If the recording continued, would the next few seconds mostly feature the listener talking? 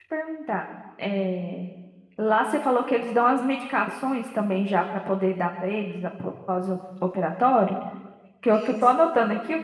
No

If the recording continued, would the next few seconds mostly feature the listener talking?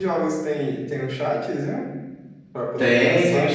Yes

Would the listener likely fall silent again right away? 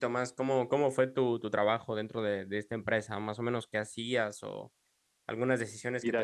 No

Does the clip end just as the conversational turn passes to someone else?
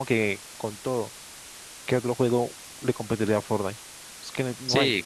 Yes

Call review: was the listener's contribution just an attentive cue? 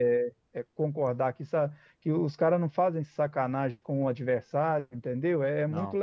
Yes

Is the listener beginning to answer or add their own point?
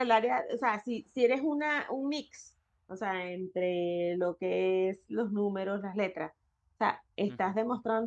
No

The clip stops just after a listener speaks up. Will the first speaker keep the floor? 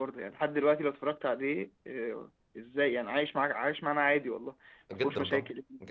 No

